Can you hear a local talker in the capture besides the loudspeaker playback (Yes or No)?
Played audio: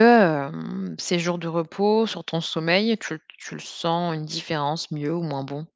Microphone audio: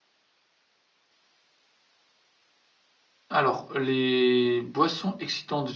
Yes